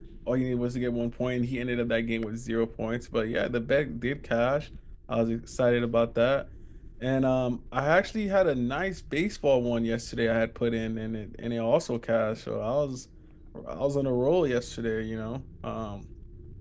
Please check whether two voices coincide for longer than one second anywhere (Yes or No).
No